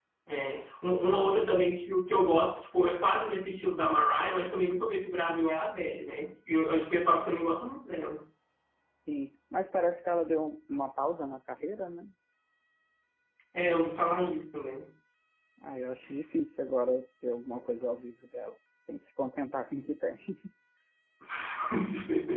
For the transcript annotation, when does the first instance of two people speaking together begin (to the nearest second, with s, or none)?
none